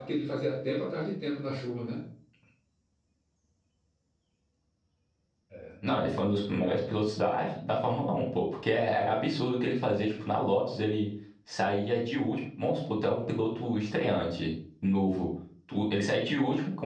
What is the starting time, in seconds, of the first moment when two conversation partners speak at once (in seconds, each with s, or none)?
none